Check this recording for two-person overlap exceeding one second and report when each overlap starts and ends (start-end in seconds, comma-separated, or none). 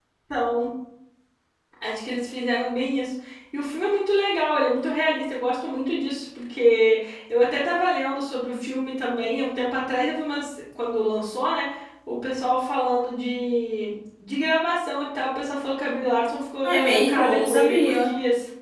16.6-18.1